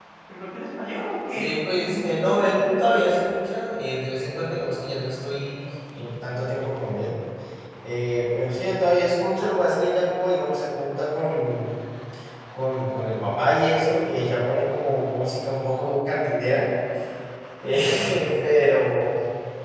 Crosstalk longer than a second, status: present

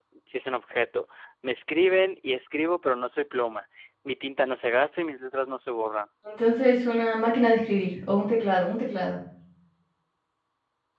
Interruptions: none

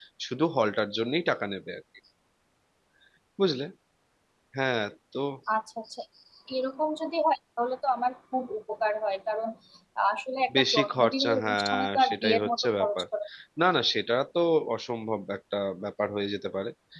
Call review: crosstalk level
present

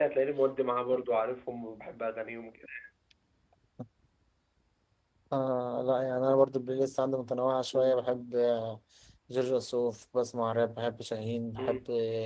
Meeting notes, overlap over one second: none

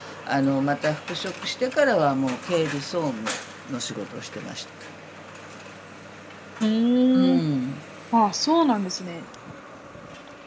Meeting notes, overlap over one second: none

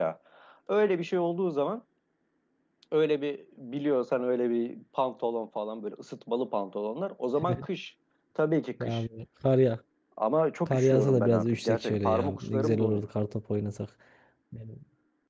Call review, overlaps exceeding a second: present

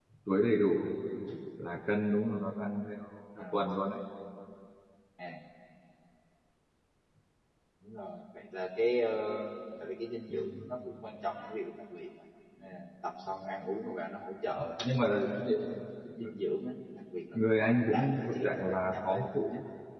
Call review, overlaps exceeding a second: present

